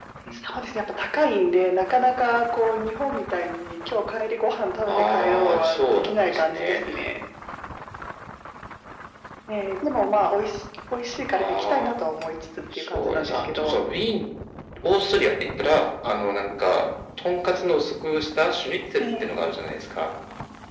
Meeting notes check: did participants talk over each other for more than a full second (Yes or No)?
Yes